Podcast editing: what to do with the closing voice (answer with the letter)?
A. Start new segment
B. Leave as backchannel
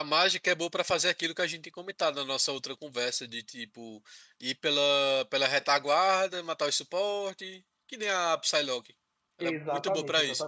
A